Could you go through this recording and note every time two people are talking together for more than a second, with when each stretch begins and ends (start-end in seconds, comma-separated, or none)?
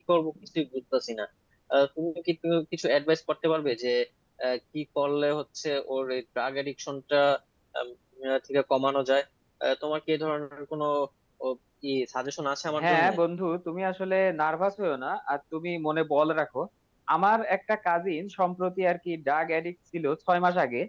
none